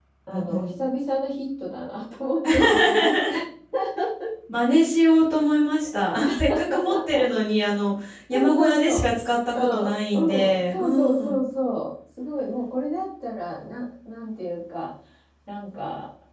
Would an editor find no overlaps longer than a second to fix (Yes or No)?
No